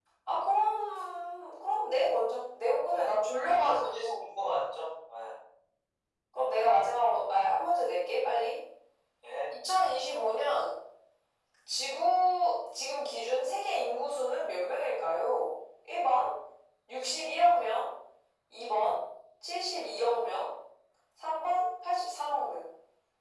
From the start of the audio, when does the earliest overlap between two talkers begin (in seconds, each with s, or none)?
2.9 s